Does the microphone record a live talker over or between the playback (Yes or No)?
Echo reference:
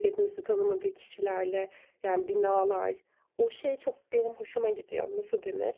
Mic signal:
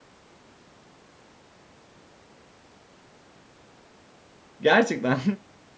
Yes